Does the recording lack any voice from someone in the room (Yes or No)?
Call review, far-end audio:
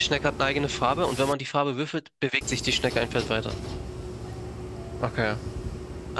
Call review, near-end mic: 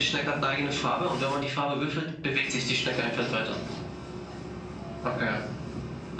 Yes